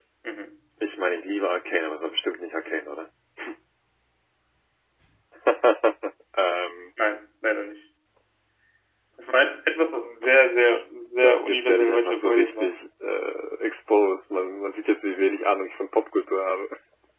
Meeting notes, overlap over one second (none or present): present